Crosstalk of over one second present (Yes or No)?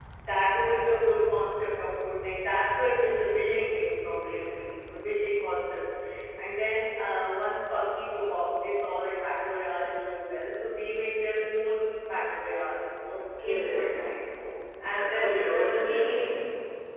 Yes